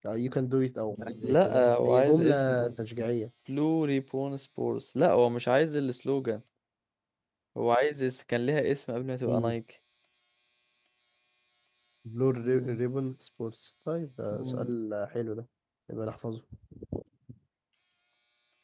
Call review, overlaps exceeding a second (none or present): present